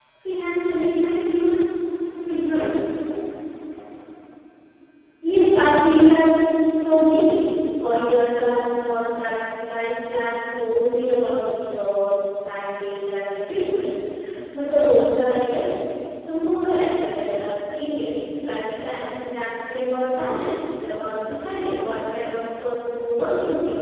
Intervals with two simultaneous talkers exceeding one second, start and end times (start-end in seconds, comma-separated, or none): none